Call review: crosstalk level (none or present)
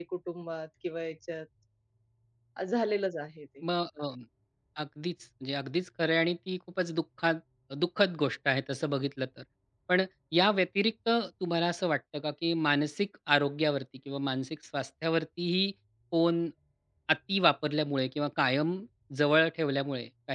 none